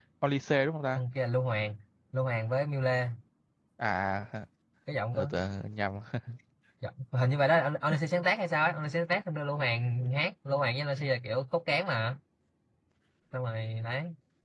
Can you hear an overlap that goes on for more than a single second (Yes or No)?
No